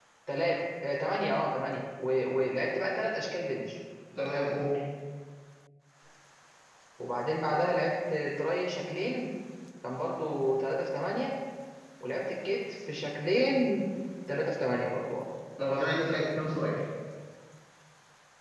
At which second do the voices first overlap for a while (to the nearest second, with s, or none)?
none